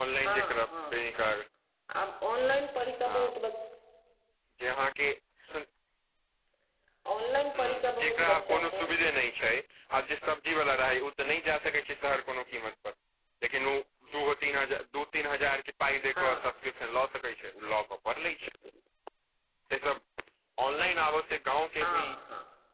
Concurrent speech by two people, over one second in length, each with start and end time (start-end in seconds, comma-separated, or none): 7.6-8.9